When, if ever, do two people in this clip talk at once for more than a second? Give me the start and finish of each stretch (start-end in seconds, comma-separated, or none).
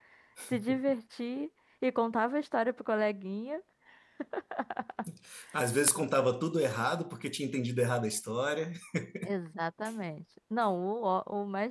none